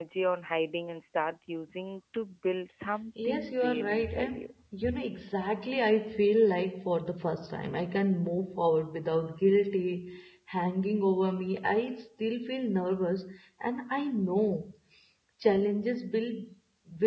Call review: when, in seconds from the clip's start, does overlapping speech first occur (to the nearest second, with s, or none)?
3 s